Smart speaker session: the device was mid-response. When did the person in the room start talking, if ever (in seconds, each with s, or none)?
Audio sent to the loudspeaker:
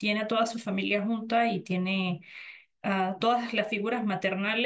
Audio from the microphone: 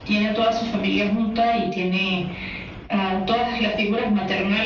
none